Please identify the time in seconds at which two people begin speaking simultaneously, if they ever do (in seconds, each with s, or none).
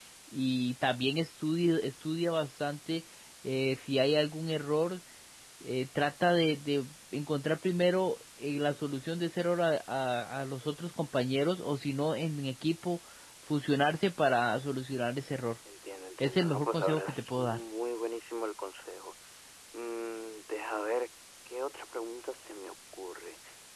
16.2 s